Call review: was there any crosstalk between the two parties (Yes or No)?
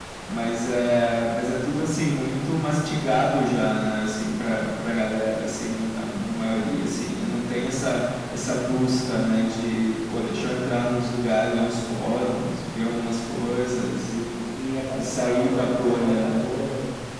Yes